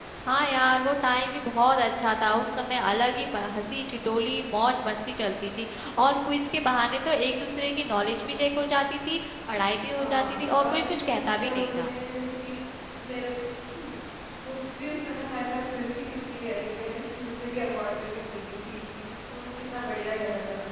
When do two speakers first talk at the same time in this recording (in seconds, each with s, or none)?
9.9 s